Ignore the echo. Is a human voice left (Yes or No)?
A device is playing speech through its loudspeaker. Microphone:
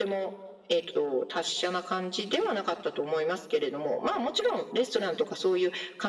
No